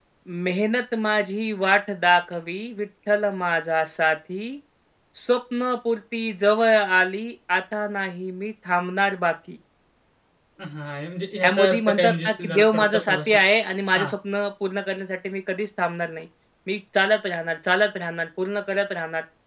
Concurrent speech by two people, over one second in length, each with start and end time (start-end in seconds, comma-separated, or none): 11.4-13.4